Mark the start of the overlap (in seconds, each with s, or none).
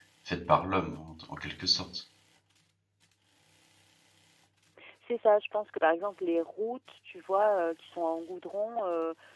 none